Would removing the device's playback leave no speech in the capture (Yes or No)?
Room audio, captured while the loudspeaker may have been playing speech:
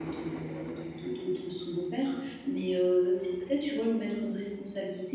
No